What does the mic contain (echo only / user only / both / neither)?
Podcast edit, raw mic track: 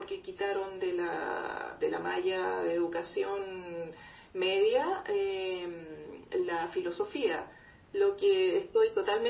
echo only